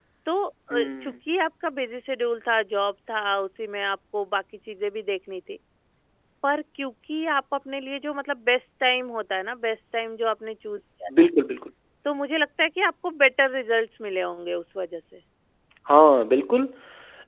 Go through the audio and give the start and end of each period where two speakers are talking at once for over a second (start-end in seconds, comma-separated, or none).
none